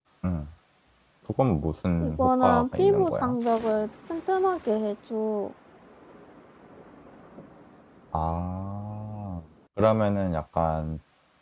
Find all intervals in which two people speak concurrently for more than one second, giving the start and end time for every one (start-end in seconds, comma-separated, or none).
2.0-3.4